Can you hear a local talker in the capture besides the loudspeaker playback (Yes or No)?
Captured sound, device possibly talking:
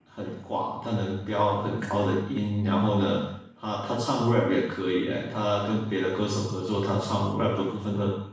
Yes